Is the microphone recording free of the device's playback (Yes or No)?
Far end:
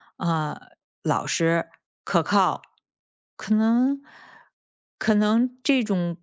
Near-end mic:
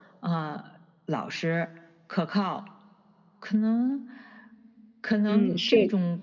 No